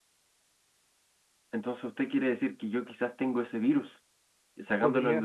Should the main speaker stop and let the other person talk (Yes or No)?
No